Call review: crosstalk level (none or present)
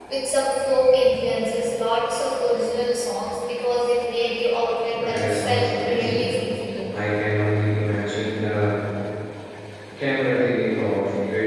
present